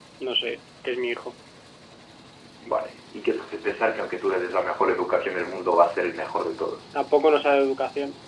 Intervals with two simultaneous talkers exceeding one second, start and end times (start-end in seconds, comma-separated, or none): none